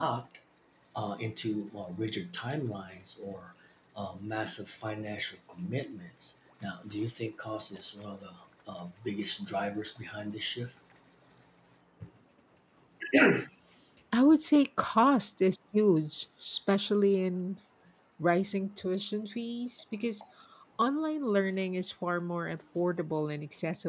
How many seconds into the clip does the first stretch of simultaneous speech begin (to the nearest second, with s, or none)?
none